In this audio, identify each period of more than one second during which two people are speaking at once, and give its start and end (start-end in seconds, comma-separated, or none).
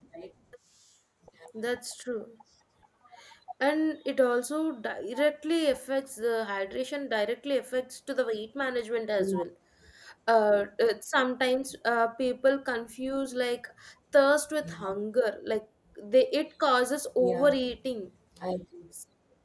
none